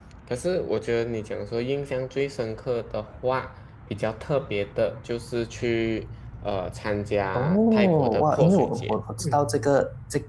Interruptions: present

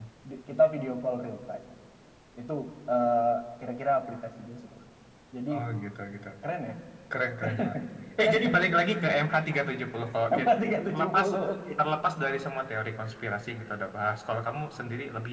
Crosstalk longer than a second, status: none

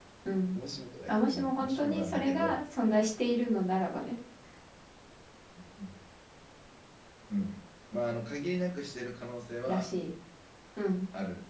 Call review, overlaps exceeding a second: present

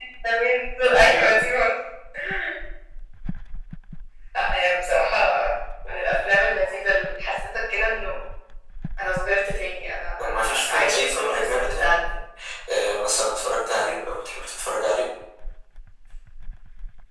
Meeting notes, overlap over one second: present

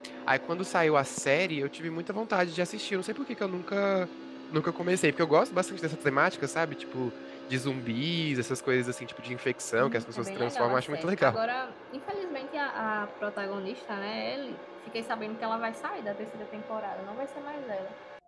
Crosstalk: present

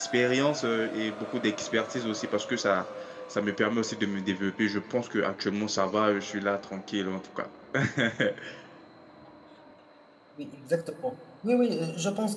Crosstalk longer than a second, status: none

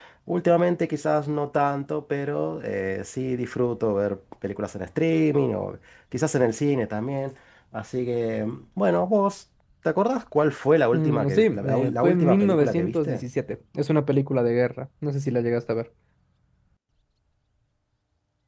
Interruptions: present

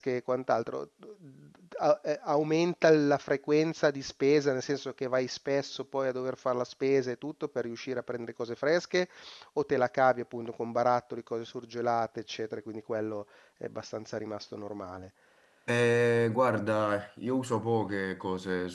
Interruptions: none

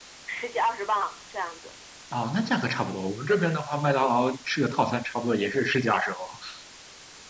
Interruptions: none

